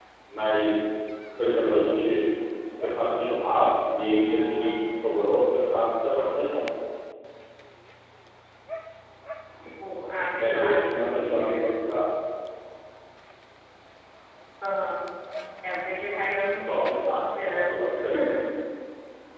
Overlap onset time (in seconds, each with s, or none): 10.4 s